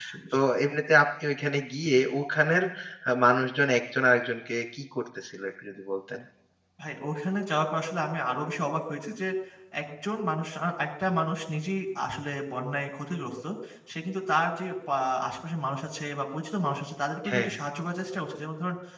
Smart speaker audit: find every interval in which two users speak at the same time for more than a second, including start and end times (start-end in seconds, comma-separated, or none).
none